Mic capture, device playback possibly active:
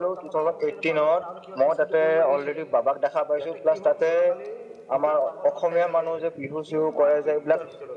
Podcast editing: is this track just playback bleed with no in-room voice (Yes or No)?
No